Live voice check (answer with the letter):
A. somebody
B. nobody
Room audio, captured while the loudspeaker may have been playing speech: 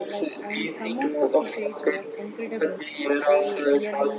A